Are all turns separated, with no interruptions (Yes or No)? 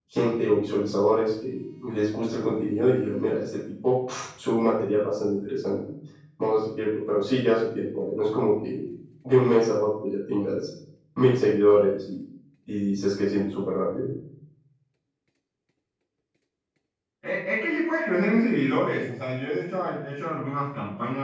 Yes